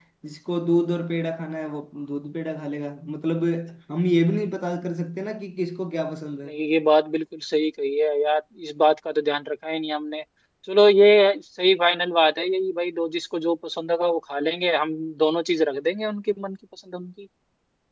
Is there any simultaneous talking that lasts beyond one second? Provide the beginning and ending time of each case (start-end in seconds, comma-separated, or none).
none